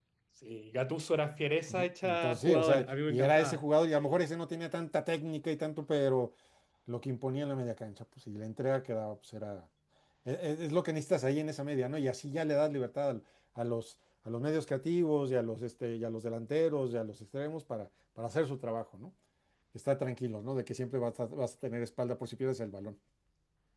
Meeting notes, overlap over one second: present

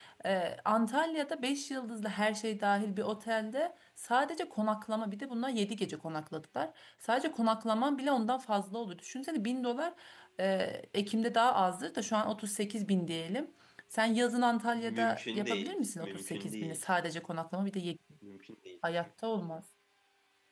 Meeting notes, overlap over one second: present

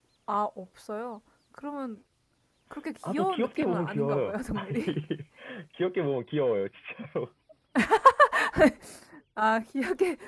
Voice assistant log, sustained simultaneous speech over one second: present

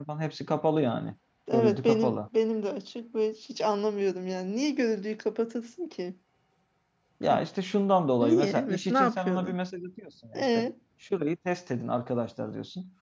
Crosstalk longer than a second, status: present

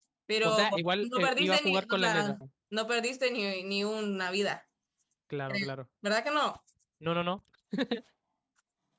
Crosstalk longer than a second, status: present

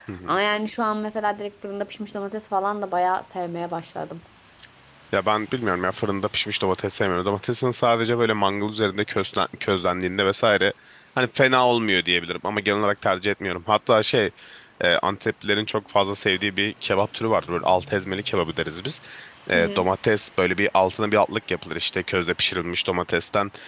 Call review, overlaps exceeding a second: none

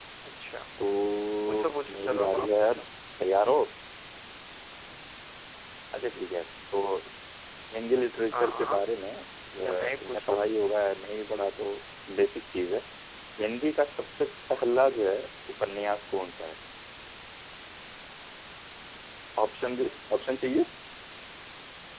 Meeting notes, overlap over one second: present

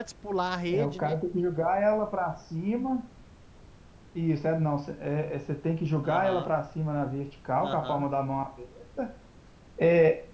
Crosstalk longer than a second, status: none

